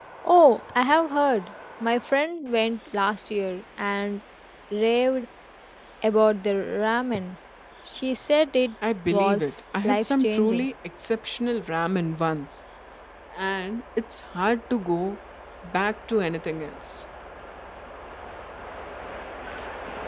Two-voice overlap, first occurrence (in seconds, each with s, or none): 9.1 s